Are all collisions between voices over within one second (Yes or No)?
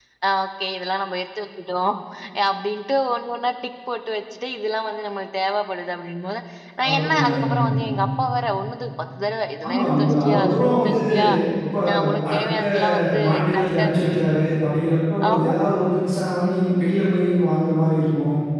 No